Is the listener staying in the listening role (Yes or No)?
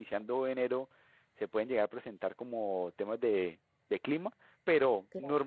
Yes